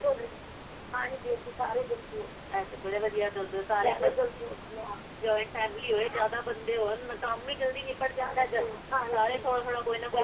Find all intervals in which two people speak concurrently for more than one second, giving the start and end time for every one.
none

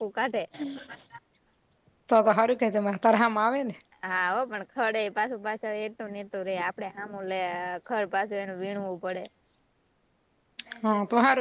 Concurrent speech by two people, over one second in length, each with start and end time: none

